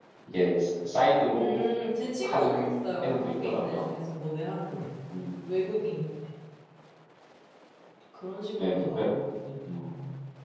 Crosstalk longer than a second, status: present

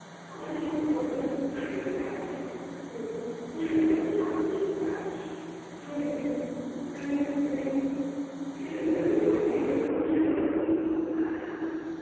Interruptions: present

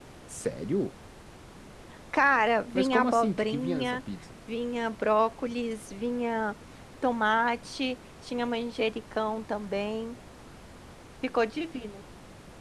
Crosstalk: present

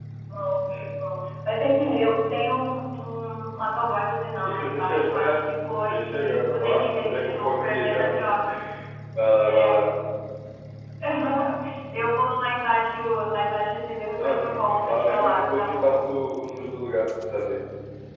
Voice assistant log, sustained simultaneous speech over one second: present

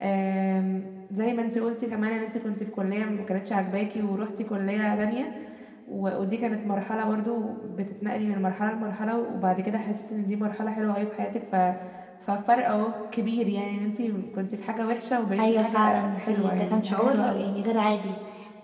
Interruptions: present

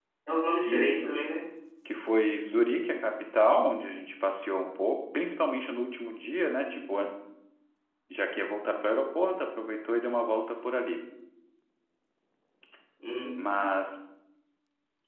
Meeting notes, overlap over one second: none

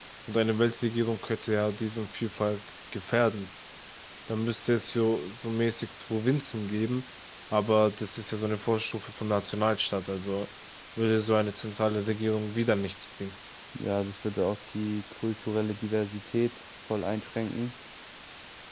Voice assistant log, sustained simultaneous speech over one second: none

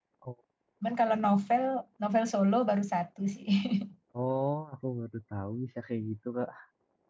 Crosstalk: none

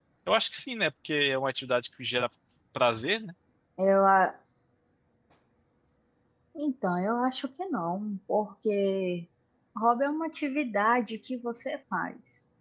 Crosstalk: none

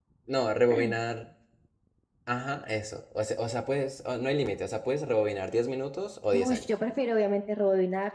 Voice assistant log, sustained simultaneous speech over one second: none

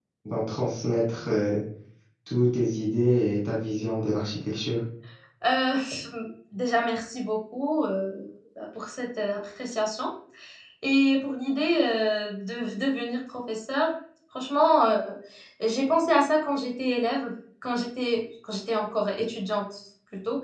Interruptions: none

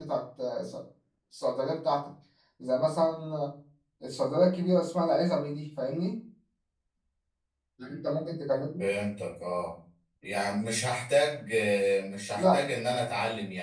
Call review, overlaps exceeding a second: none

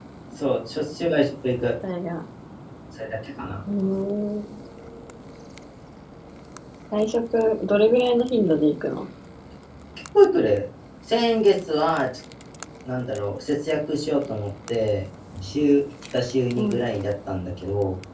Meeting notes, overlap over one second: none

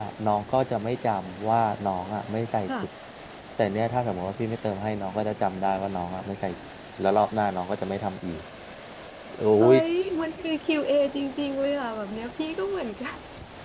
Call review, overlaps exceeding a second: none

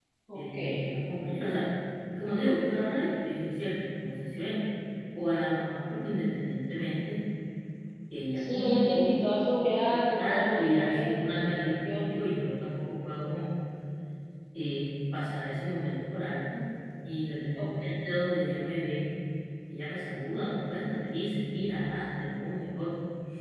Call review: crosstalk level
present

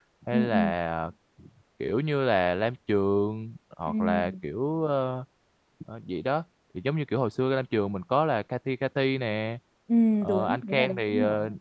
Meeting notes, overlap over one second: present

